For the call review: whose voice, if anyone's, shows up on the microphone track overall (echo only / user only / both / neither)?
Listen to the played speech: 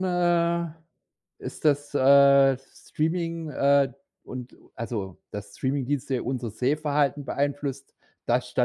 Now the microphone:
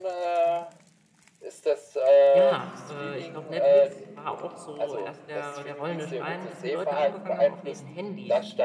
both